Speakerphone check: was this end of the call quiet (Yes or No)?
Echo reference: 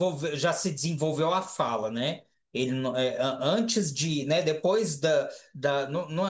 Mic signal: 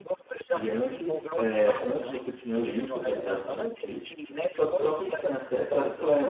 No